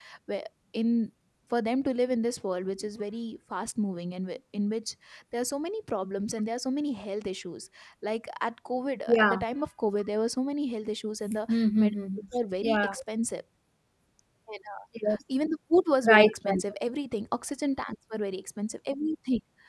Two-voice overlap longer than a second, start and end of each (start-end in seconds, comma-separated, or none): none